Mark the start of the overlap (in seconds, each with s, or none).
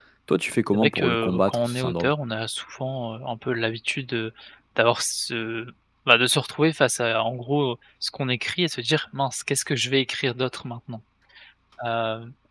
0.7 s